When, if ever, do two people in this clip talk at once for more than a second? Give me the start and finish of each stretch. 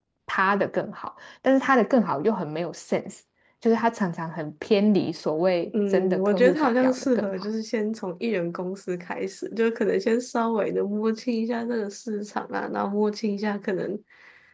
5.9-7.3

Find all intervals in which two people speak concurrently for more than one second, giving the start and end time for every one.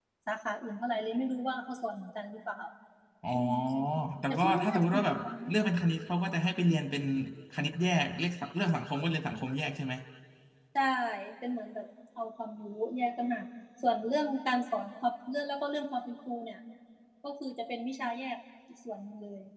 4.3-5.5

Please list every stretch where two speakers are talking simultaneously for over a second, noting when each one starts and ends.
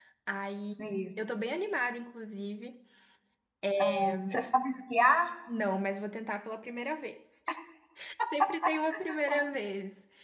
none

